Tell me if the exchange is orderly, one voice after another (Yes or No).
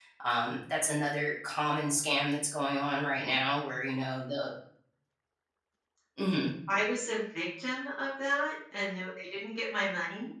Yes